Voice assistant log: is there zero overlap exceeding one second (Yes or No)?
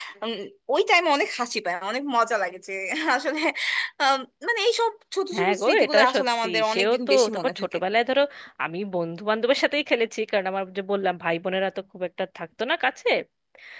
No